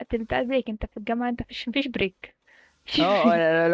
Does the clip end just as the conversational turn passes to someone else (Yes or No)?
Yes